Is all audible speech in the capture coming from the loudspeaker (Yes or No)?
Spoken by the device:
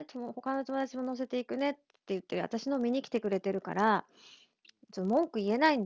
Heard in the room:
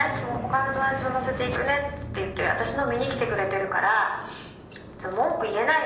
Yes